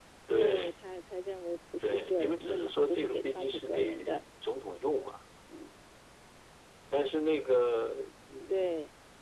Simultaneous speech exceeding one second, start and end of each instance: 1.8-4.2

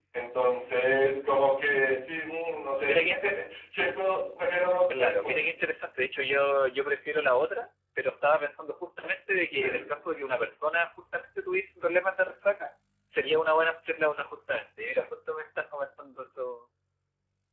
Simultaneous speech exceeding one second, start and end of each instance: none

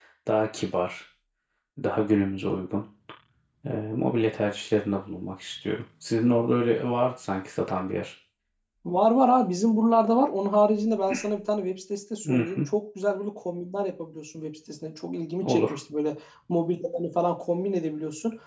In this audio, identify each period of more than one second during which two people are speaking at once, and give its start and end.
none

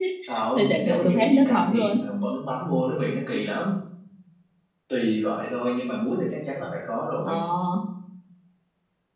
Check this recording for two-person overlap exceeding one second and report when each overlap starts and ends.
0.6-1.9

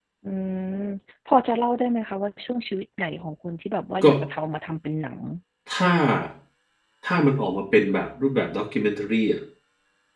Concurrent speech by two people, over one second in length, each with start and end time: none

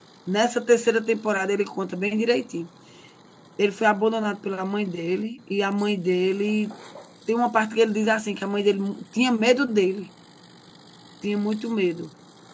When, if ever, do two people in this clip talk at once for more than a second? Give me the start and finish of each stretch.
none

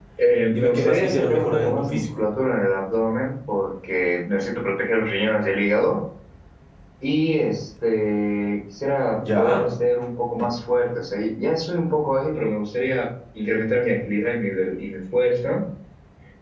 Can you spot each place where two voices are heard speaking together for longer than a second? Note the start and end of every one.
0.5-2.2

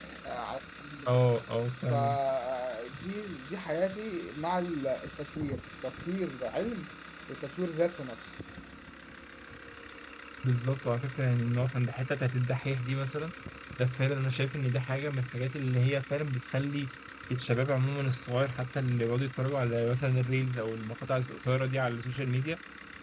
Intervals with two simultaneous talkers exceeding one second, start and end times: none

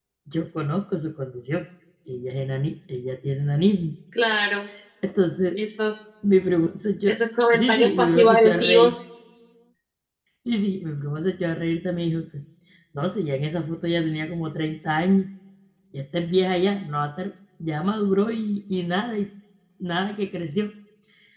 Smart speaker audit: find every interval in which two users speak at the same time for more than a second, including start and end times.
7.5-8.9

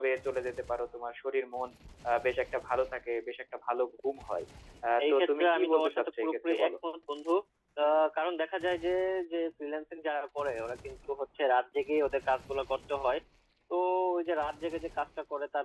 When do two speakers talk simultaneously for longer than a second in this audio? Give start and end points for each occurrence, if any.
5.0-6.7

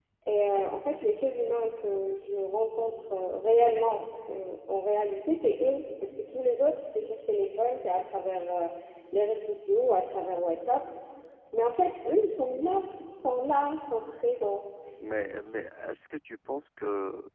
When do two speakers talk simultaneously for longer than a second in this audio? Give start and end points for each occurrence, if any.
none

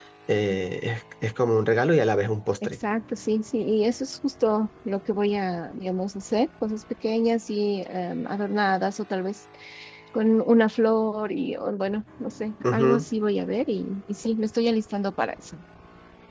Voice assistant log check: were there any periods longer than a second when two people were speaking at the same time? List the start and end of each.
none

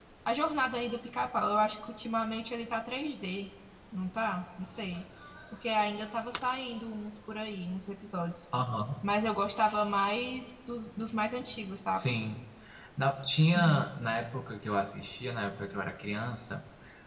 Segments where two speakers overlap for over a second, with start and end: none

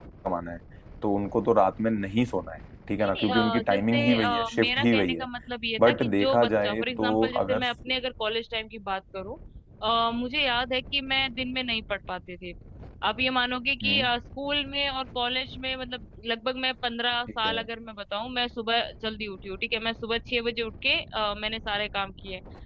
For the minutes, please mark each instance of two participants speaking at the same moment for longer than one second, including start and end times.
3.1-5.2, 5.8-7.6

